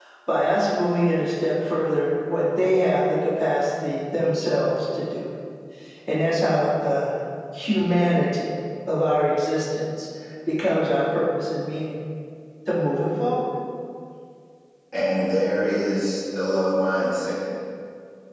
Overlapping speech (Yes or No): No